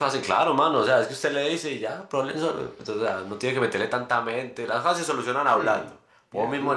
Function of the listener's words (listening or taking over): listening